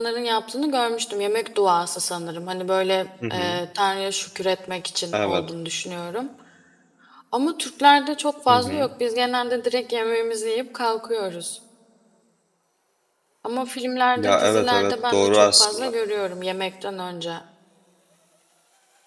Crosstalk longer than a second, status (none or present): present